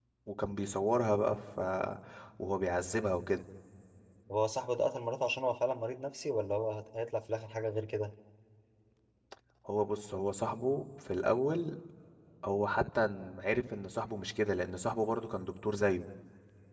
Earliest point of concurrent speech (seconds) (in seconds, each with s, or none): none